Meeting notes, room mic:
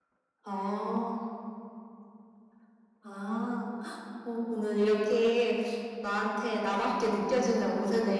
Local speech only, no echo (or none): none